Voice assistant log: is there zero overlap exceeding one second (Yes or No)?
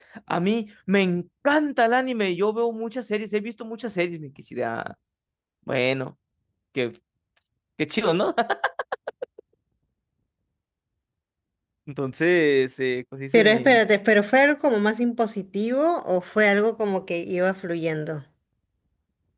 Yes